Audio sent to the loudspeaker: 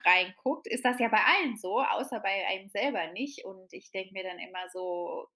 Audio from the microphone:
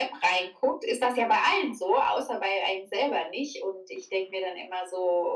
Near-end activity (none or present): none